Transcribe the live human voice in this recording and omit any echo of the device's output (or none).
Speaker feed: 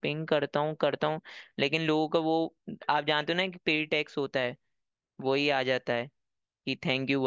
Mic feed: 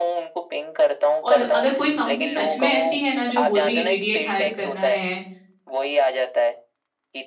और अगर कोई कंपनी सच में ऐसी है ना जो बोल रही है इमीडिएट हायर करना है